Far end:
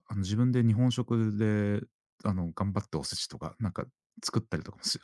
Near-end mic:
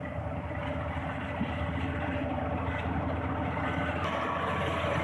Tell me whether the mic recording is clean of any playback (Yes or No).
Yes